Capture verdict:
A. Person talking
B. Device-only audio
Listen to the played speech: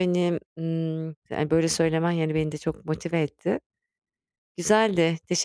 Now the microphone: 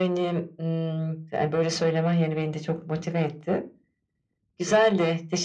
B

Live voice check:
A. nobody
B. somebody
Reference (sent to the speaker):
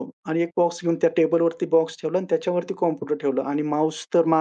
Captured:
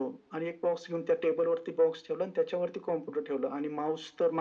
A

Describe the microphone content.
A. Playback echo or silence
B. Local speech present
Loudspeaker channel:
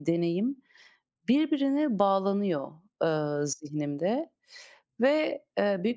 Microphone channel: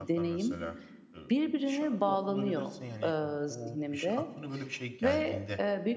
B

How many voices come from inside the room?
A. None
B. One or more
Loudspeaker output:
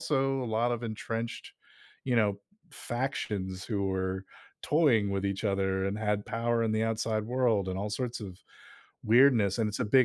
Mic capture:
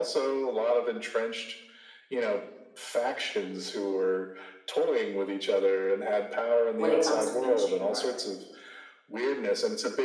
B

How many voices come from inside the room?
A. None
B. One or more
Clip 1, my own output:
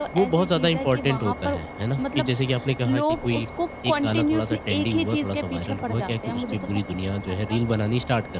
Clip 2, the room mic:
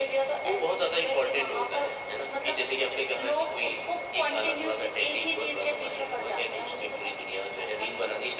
A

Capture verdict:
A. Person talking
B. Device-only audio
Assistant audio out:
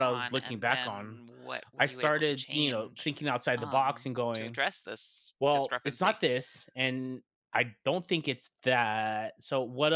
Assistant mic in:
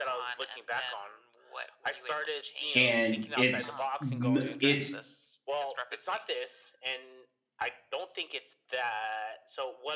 A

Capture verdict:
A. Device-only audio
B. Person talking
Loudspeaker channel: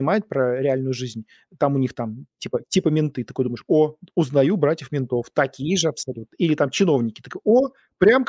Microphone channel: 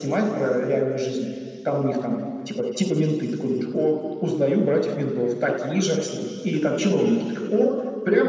A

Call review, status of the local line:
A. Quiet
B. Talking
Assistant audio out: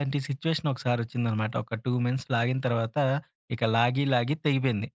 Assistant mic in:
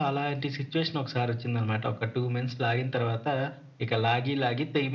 A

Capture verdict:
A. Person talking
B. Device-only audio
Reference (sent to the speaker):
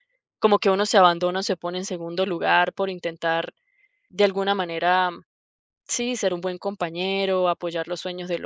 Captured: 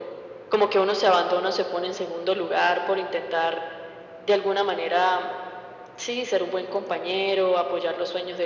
B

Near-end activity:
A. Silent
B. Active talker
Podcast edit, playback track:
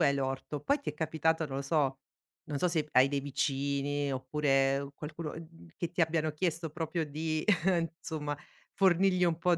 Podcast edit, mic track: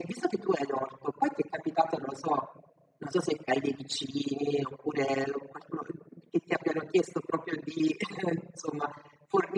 A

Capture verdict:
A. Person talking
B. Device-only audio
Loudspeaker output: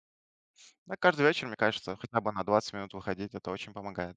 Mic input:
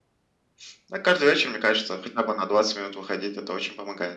B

